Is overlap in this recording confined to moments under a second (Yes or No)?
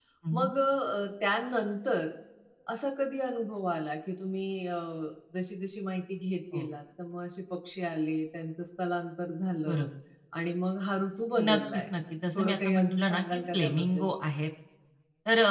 No